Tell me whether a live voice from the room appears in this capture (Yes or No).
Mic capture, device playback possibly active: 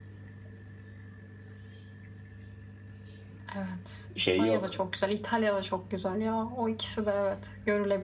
Yes